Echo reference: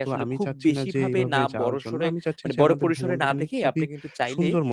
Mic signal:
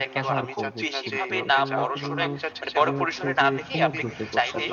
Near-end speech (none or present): present